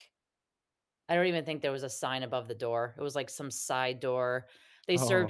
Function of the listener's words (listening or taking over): listening